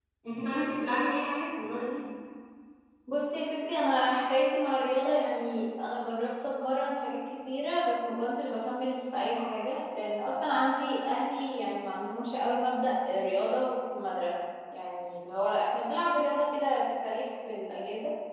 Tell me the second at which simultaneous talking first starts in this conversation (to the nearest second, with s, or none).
none